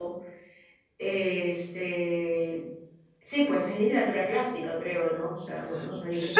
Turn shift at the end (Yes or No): Yes